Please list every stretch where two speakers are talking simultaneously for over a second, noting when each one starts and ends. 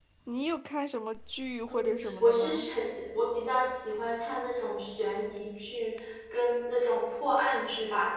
none

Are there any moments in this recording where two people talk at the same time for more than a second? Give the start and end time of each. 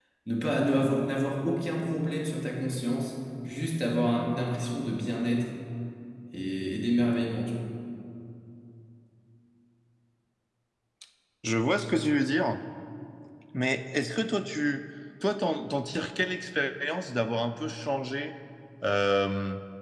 none

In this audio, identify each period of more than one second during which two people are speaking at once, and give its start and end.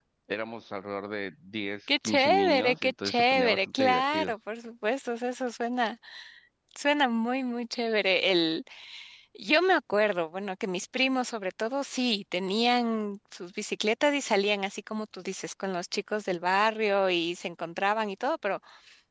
1.9-4.3

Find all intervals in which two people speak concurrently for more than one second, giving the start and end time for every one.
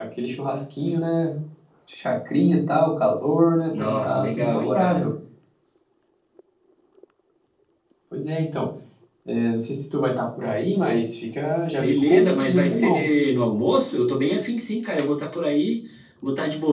3.7-5.0, 11.8-13.0

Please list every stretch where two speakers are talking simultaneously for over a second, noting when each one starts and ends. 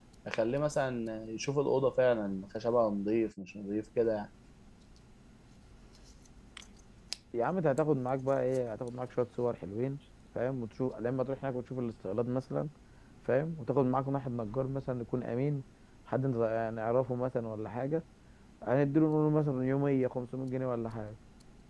none

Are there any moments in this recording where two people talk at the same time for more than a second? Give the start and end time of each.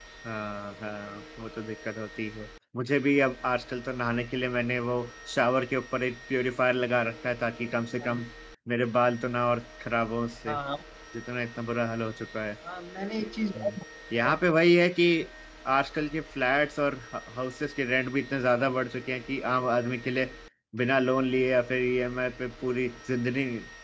none

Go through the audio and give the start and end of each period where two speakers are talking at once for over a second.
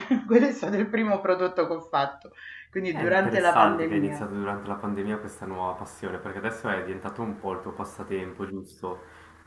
2.9-4.2

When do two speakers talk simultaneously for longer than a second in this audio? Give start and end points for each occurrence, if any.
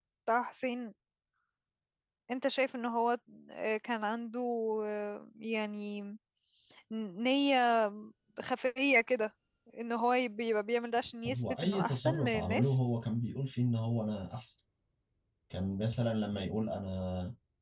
11.3-12.8

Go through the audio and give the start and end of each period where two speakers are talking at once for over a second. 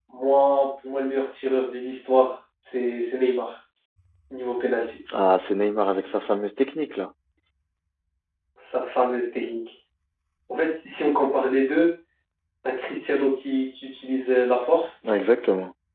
none

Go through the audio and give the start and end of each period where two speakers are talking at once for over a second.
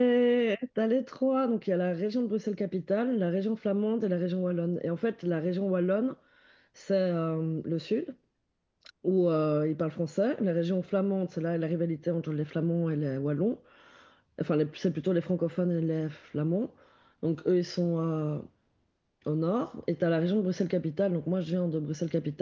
none

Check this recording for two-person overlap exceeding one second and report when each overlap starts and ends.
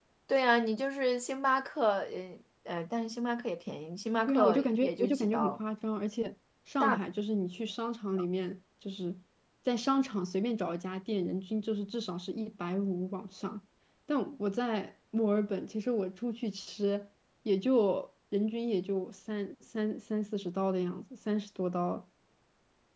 4.3-5.6

